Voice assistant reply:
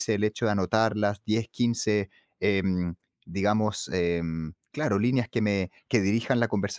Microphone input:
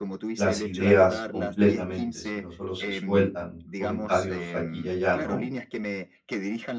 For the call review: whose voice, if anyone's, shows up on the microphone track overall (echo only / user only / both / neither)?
both